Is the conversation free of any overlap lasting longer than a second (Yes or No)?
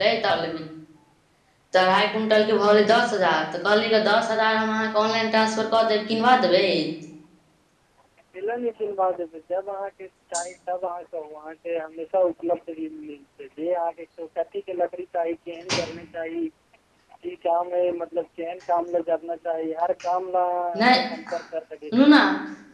Yes